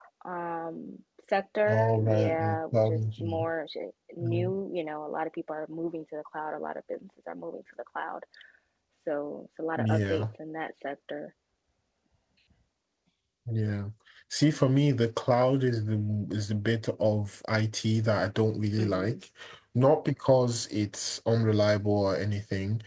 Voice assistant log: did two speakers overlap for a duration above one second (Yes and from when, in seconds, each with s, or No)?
Yes, from 1.7 s